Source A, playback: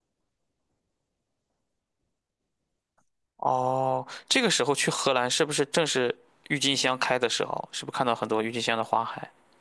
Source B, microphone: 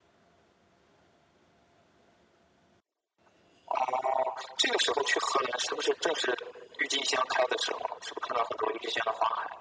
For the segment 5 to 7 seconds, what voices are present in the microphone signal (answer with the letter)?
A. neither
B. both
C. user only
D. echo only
D